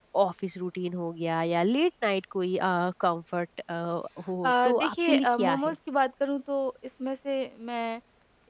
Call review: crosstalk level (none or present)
present